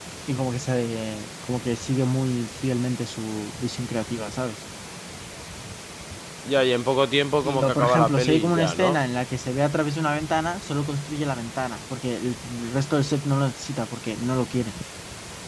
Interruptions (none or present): present